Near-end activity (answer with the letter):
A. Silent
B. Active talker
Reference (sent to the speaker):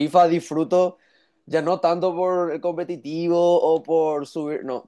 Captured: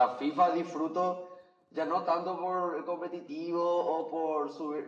A